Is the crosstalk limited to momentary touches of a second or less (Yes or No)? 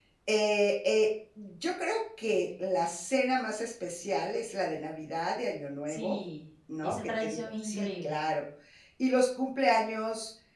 No